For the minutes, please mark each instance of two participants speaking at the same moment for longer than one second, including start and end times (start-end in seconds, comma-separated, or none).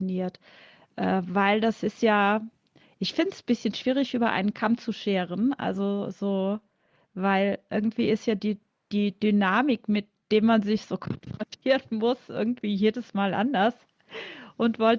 none